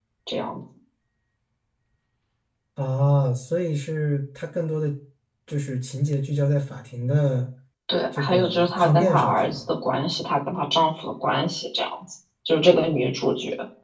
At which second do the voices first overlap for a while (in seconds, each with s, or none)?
8.2 s